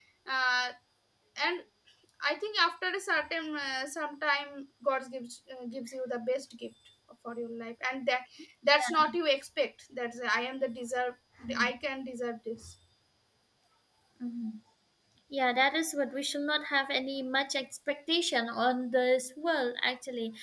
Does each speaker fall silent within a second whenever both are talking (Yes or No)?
Yes